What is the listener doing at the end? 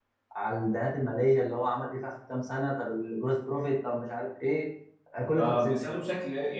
taking over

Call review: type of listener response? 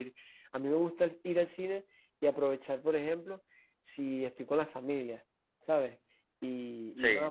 listening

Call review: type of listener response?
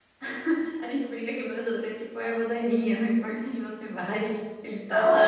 taking over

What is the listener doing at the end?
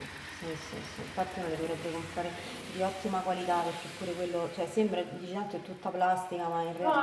taking over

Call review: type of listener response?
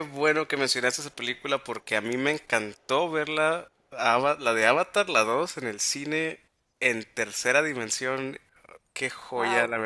listening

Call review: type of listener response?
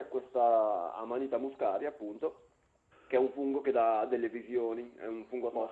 taking over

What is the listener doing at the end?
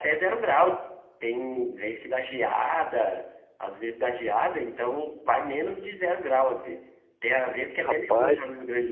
listening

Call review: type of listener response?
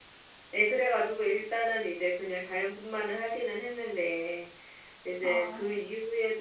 listening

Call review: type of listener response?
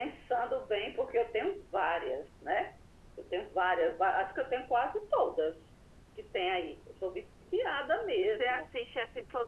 taking over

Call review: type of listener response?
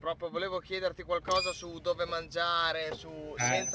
listening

